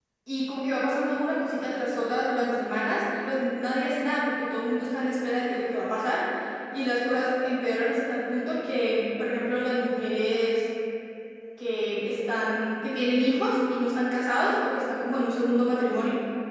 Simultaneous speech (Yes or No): No